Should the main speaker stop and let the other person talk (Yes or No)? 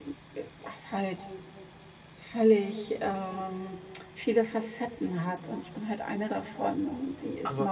No